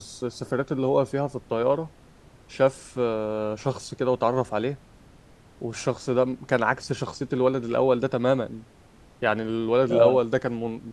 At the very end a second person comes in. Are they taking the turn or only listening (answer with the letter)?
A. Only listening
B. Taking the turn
A